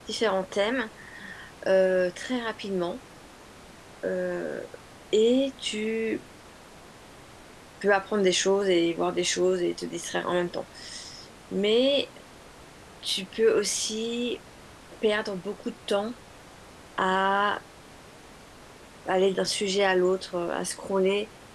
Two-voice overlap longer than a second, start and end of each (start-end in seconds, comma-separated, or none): none